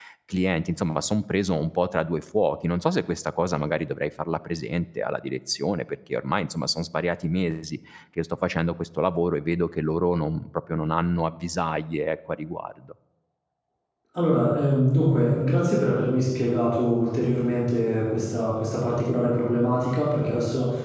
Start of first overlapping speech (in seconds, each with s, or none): none